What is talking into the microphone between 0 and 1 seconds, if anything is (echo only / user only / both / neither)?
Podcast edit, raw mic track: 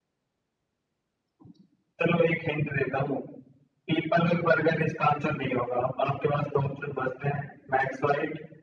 neither